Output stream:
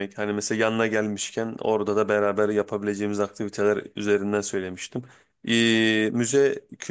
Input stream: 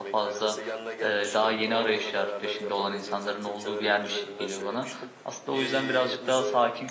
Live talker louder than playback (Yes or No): Yes